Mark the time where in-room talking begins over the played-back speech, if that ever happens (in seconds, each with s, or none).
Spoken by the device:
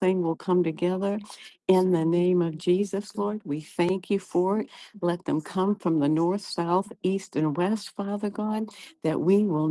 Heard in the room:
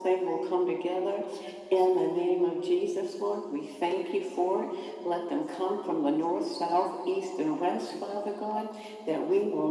none